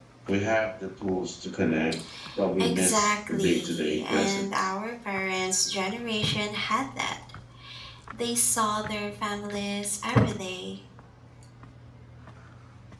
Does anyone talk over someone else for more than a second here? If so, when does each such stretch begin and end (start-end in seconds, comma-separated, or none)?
2.6-4.7